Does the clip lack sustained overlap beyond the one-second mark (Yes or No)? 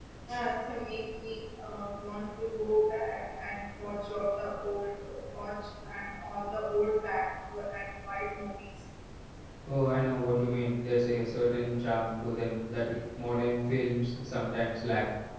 Yes